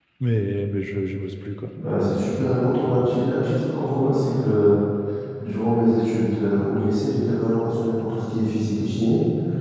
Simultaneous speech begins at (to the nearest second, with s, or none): none